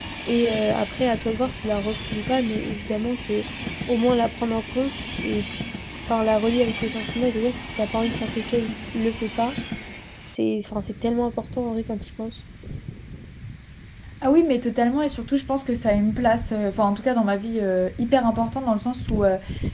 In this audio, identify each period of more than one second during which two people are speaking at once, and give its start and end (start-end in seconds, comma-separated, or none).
none